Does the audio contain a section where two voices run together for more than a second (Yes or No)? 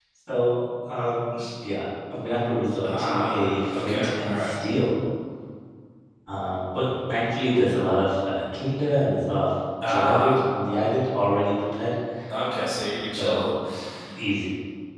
Yes